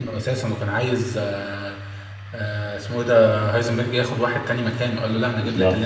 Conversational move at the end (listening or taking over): listening